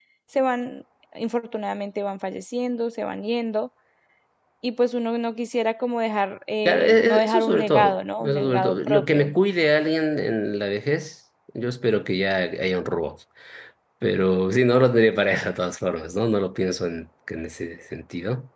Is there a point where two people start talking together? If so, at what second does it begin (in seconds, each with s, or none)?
6.7 s